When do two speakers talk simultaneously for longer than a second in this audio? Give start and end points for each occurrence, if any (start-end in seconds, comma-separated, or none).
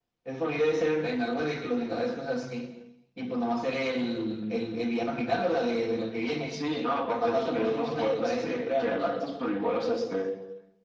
7.2-9.0